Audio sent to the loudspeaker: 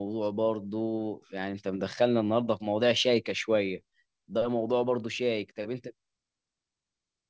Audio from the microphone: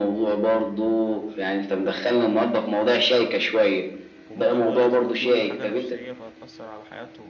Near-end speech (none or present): present